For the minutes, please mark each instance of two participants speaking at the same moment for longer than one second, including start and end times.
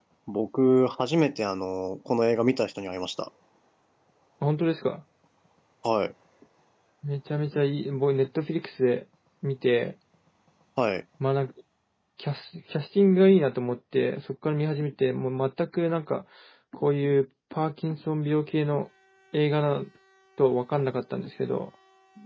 none

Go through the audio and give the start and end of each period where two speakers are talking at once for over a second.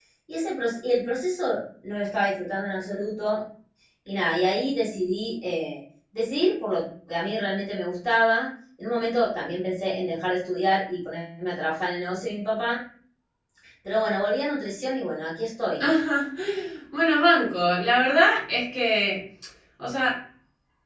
none

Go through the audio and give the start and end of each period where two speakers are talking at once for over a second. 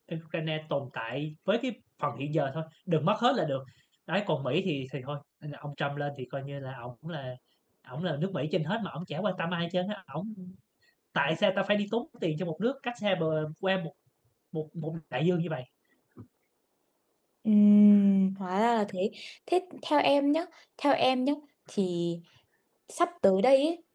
none

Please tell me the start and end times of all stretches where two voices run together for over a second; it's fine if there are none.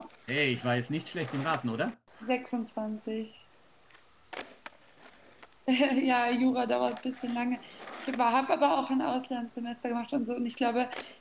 none

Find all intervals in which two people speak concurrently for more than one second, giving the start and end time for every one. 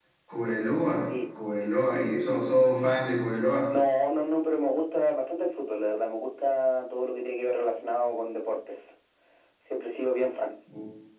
none

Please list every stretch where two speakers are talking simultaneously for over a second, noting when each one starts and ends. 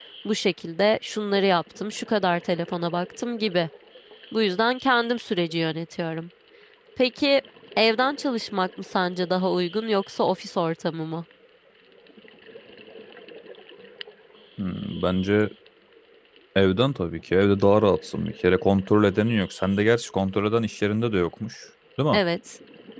none

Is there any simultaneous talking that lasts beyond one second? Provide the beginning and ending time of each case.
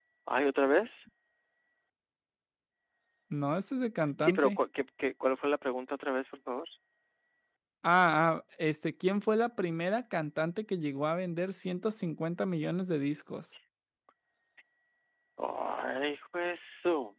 none

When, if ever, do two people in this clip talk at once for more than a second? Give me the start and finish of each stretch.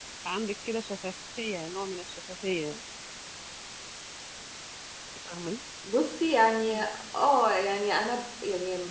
none

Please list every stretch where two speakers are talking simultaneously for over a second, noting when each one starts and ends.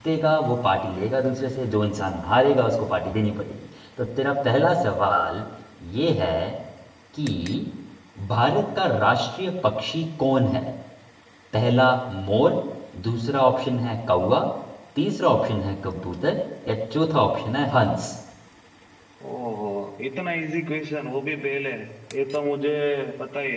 none

